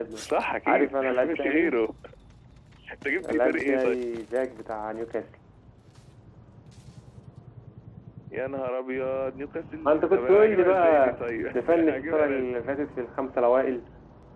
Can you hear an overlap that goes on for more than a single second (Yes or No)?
Yes